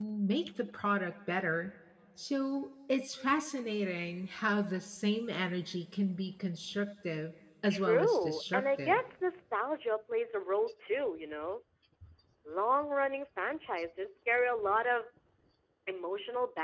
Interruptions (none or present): present